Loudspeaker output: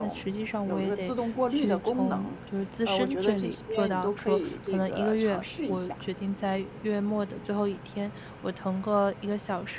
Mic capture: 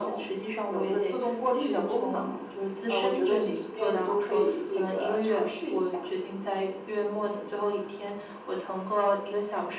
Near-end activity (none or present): none